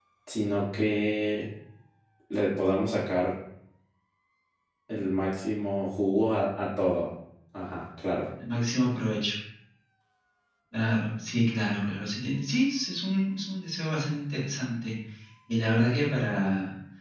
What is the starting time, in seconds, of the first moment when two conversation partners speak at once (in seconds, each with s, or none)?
none